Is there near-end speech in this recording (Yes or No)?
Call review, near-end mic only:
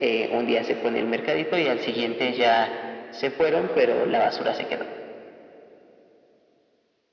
No